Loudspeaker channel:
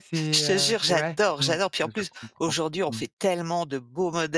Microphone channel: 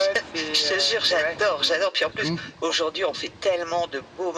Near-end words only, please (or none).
Mmh mh.